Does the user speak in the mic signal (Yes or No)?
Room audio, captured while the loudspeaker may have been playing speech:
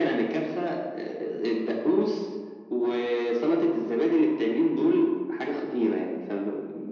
No